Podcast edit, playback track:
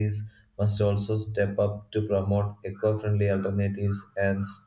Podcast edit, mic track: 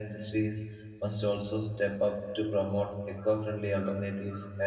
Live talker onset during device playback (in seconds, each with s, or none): none